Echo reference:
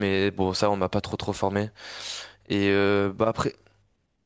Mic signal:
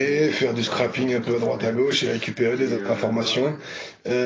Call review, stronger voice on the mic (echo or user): user